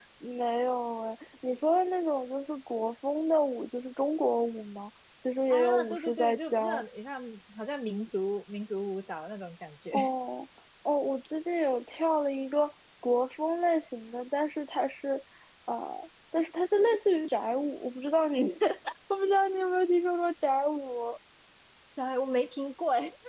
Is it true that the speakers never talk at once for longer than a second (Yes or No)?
No